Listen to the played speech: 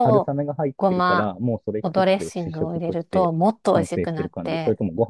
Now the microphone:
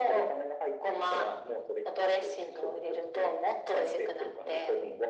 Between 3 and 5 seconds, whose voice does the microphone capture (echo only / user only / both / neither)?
echo only